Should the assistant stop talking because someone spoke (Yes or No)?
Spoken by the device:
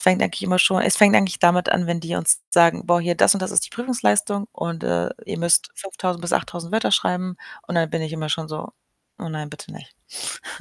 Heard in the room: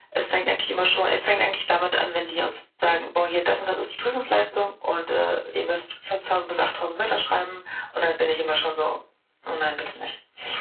No